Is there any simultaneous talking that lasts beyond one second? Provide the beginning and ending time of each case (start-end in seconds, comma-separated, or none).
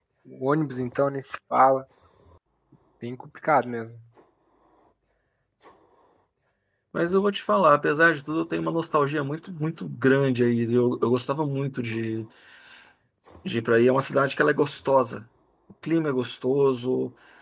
none